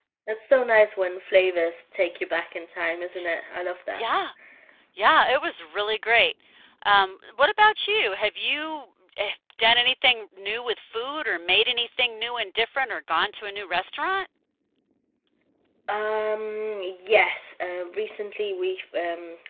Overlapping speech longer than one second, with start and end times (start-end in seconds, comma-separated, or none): none